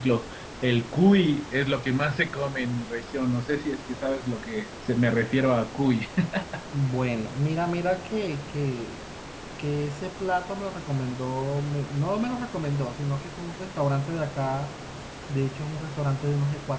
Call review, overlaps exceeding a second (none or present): none